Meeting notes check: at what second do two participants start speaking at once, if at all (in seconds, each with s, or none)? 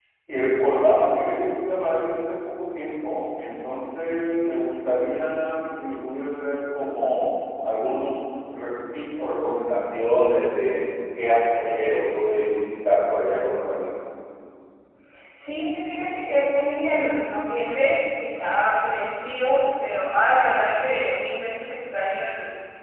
none